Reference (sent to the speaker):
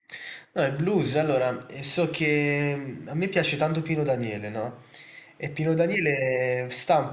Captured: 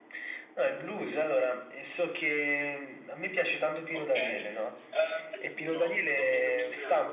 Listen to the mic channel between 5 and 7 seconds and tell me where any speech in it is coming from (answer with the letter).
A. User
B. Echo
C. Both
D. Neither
C